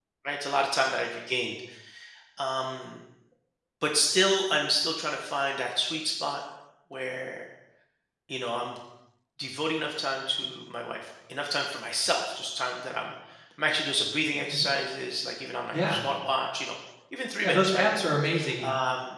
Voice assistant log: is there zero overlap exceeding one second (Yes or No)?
Yes